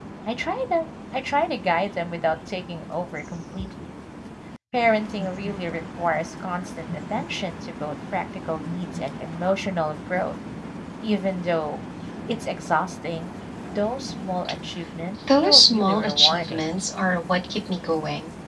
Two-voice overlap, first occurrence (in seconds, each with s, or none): 15.4 s